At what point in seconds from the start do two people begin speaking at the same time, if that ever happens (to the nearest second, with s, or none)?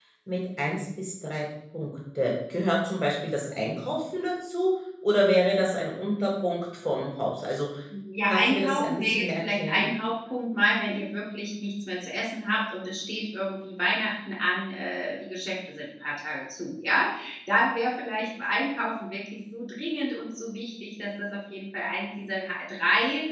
8 s